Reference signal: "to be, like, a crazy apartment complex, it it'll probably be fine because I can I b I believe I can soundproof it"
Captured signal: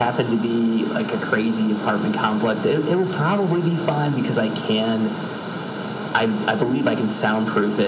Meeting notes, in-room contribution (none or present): none